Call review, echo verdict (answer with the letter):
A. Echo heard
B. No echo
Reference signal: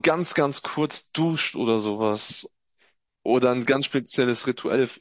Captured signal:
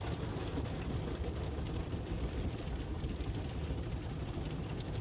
B